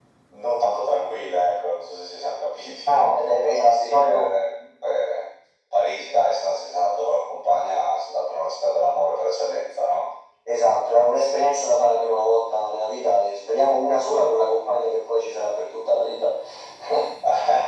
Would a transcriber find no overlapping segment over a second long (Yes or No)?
No